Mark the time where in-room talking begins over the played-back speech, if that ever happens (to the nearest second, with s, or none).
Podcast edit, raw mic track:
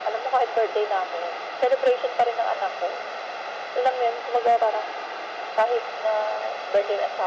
none